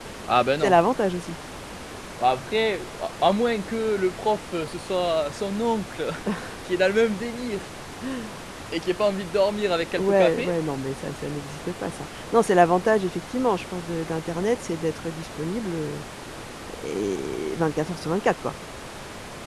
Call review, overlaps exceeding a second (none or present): none